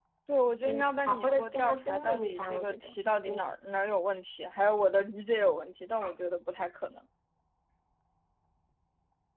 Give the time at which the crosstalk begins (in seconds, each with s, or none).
0.6 s